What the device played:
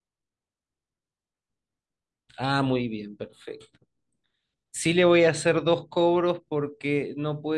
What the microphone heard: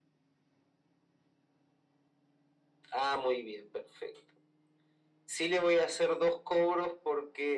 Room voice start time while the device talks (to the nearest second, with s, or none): none